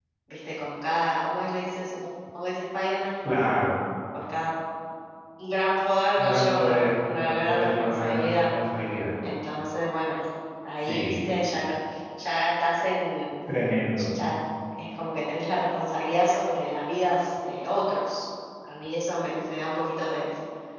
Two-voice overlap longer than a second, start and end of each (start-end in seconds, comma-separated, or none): 6.2-8.5